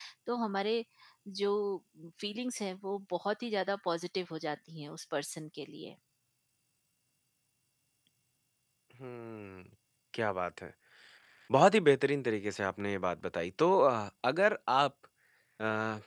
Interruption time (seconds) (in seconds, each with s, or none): none